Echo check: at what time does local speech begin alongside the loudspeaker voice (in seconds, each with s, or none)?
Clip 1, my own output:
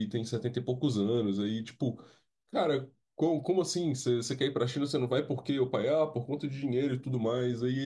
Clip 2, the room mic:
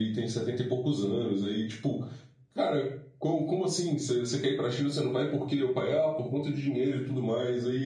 none